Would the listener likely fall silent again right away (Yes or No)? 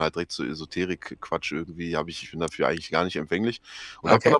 Yes